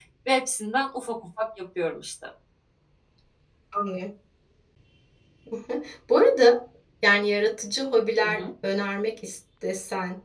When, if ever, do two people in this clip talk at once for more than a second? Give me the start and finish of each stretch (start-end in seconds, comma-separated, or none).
none